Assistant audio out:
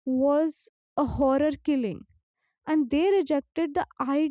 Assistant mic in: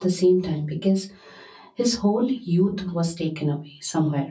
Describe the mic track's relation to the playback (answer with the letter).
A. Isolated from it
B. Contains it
A